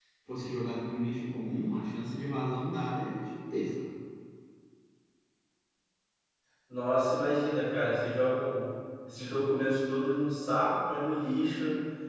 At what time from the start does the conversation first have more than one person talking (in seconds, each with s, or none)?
none